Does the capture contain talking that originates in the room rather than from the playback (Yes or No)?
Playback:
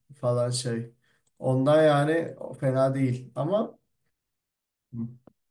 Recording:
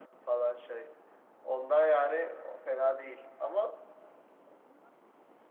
No